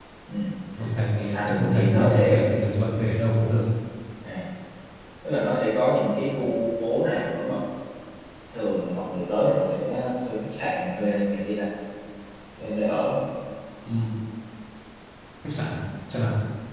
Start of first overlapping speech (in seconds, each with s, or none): 1.1 s